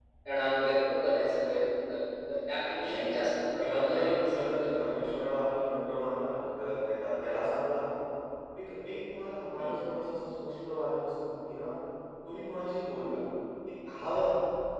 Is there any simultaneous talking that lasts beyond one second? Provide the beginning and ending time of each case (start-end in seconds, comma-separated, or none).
3.6-4.9